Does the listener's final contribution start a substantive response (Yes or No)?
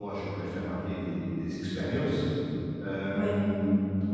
No